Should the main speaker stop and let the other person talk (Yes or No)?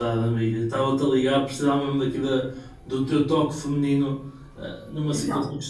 No